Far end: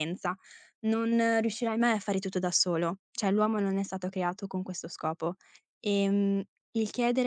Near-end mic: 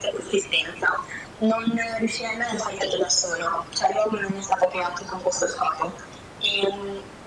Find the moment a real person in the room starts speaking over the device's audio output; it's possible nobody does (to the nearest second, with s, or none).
none